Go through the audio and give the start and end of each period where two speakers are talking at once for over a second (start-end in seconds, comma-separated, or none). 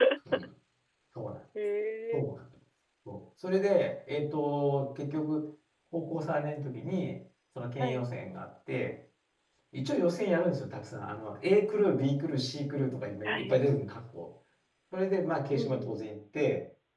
none